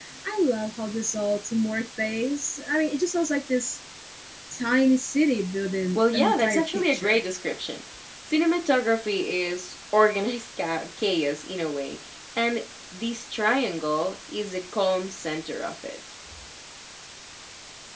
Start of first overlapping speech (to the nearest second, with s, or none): 6 s